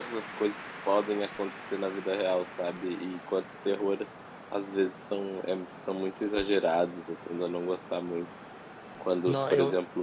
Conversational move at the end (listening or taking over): listening